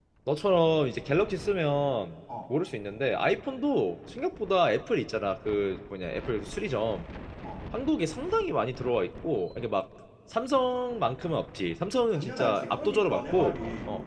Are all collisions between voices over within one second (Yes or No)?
No